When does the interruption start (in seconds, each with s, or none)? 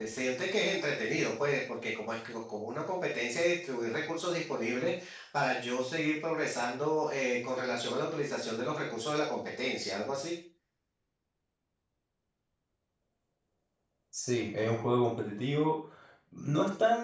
none